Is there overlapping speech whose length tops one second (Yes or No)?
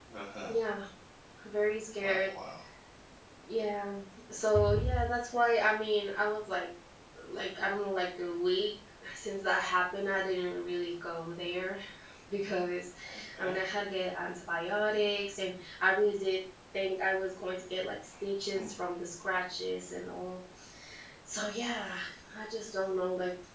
No